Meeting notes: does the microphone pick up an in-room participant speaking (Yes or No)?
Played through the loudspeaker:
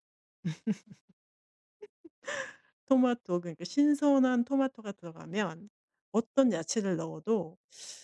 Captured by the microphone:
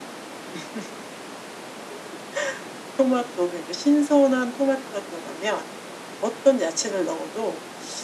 No